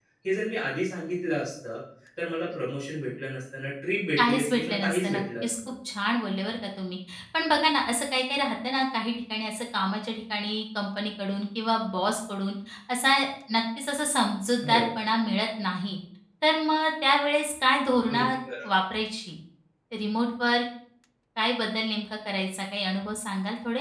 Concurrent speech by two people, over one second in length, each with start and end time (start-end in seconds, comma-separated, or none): 4.2-5.5